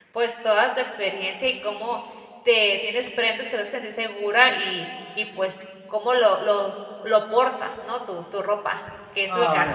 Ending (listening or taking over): taking over